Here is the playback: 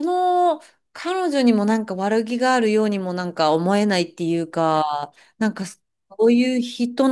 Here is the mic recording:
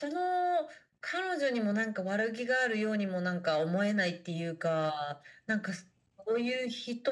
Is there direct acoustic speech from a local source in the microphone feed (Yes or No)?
No